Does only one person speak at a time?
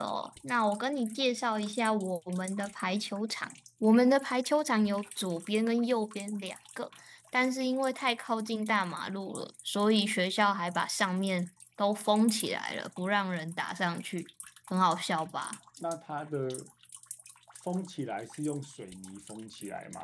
Yes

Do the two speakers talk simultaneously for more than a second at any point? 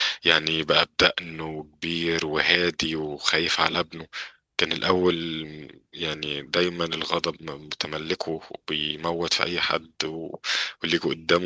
No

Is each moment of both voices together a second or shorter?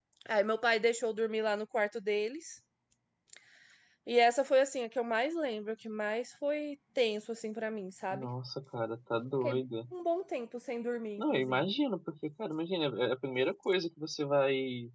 Yes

